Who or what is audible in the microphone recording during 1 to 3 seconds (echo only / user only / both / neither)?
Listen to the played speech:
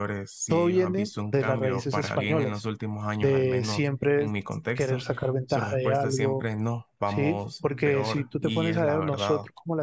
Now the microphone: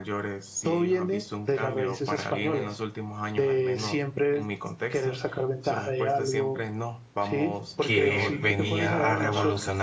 echo only